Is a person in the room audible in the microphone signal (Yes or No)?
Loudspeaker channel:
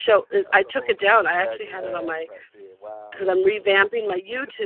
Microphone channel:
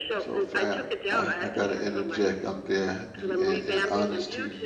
Yes